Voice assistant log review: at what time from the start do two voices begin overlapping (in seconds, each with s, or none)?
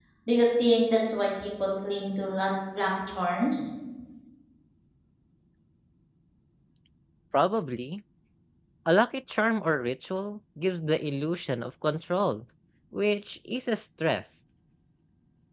none